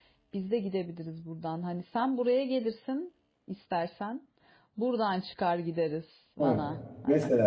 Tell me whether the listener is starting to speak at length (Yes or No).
Yes